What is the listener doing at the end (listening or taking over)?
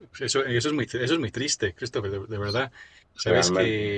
listening